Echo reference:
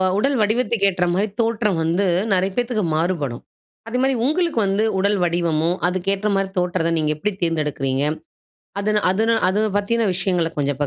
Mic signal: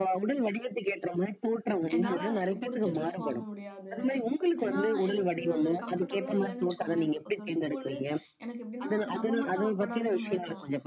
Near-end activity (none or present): present